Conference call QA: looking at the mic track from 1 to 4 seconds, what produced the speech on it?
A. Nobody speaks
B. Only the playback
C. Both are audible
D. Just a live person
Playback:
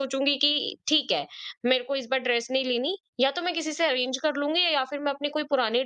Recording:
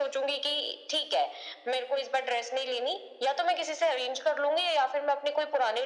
B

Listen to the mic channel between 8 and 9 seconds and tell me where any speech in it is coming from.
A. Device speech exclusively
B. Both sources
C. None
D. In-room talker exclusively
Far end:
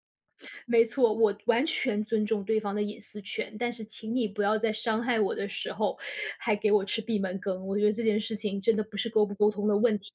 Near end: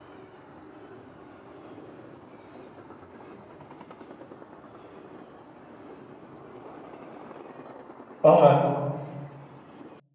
D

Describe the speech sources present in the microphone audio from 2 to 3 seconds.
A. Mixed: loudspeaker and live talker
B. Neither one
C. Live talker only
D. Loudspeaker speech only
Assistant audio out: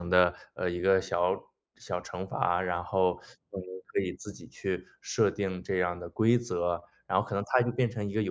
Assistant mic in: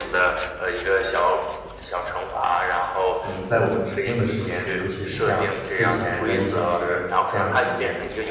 D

